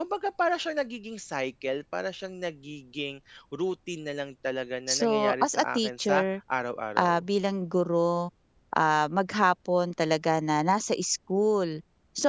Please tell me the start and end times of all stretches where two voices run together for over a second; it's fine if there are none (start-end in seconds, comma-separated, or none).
4.9-6.2